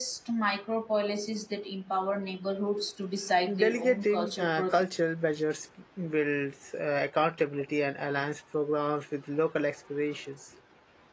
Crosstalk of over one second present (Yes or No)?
Yes